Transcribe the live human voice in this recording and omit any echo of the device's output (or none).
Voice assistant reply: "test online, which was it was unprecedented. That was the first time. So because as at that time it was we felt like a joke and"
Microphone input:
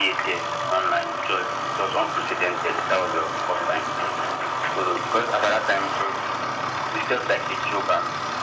none